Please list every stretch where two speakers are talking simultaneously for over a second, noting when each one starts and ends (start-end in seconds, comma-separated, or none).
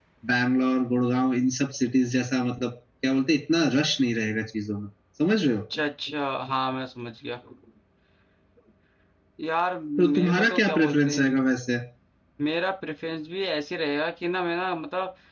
10.0-11.4